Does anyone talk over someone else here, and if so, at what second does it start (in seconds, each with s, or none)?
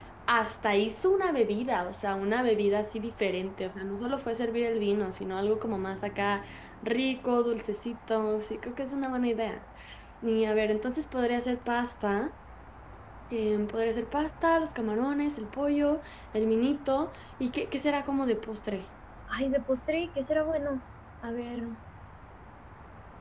none